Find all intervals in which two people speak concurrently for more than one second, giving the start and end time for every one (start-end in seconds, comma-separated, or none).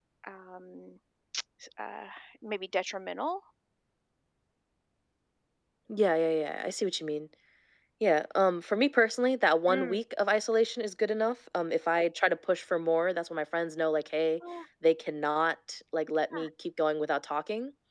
none